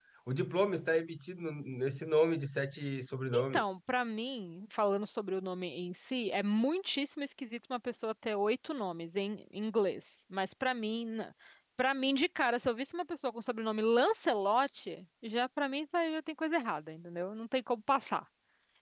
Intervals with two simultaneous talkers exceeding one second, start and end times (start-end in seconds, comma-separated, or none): none